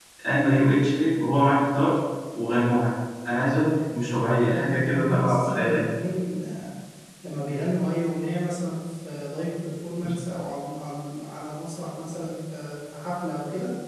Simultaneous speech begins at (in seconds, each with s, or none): 4.5 s